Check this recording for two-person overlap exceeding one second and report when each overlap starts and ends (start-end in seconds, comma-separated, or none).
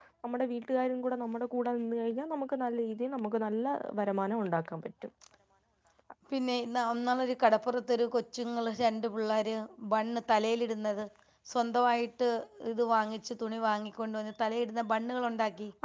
none